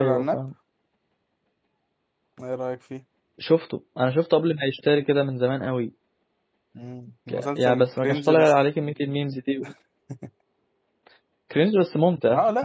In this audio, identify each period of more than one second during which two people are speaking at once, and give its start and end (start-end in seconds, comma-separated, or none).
7.3-8.5